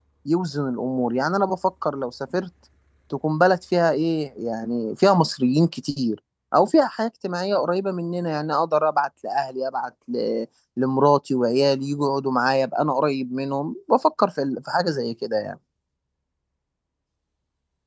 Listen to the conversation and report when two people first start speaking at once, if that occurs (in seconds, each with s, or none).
none